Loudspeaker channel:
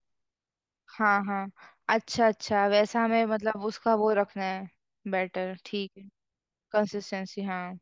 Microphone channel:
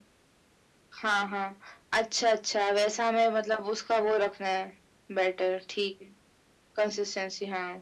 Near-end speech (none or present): none